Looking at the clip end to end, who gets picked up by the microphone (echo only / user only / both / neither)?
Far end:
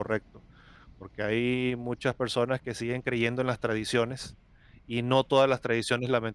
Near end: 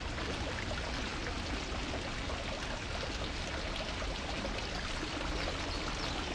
neither